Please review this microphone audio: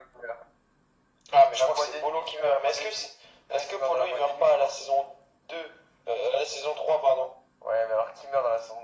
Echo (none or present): present